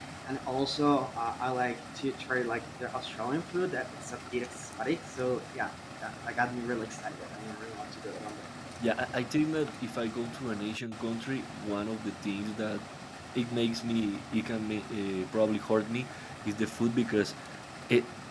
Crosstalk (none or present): none